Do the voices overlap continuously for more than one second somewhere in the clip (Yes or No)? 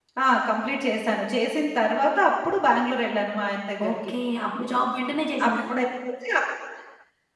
No